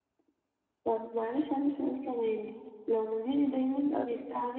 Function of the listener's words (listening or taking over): listening